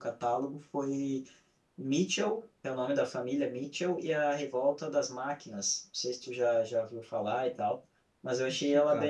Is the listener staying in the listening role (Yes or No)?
Yes